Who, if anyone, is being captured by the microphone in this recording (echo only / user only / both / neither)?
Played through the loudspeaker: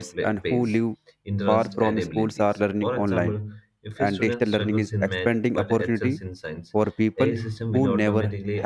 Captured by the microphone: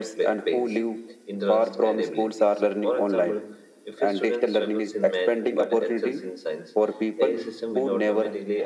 echo only